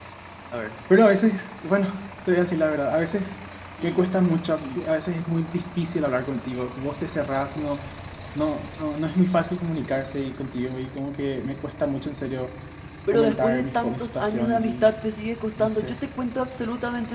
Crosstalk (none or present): present